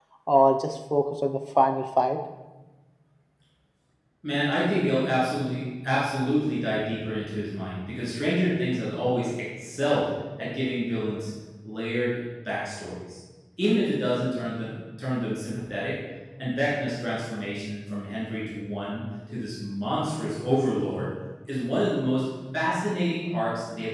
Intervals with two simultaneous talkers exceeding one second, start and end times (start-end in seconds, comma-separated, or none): none